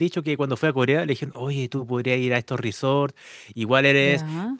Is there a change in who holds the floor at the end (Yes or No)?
No